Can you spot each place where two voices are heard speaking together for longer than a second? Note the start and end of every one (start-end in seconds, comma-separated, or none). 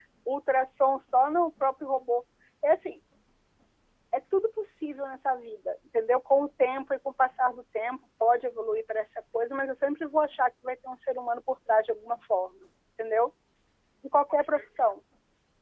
none